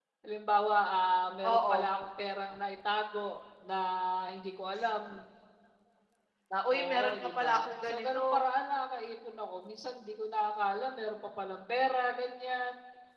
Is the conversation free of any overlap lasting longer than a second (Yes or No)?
No